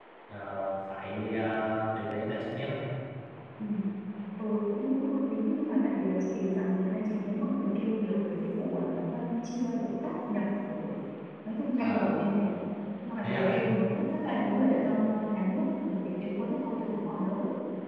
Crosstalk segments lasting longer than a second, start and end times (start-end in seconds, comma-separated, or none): none